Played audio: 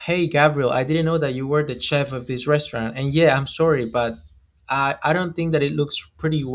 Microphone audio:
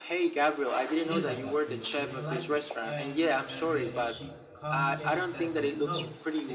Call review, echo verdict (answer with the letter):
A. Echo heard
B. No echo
A